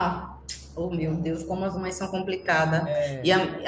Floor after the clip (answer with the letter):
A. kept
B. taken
A